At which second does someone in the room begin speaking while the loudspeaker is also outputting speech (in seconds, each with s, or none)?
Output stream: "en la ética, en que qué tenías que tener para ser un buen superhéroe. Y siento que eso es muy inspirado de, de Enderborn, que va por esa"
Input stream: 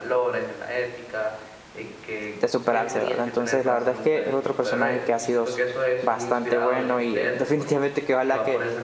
2.3 s